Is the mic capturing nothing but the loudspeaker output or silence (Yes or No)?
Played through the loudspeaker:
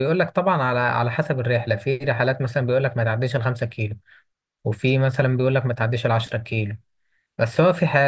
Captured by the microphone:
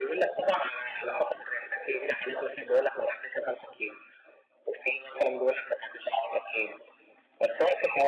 Yes